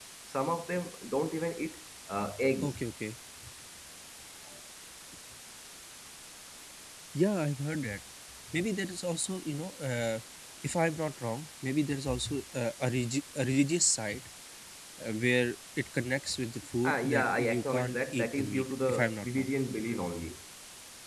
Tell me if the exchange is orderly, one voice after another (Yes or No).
No